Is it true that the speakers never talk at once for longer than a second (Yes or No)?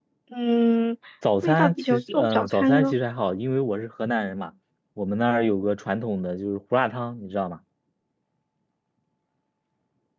No